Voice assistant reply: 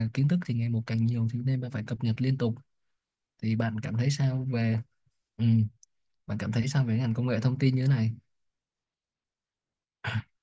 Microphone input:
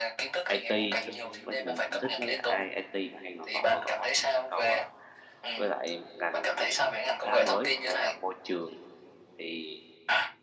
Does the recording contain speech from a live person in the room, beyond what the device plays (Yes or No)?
Yes